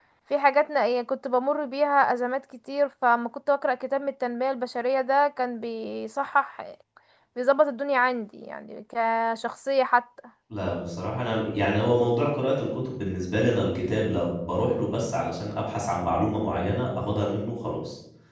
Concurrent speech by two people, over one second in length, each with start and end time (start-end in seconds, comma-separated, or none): none